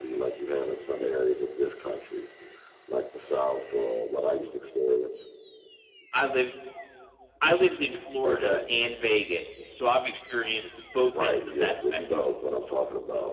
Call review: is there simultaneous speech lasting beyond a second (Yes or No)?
Yes